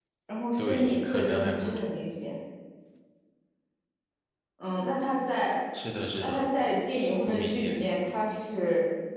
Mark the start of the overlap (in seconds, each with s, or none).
0.6 s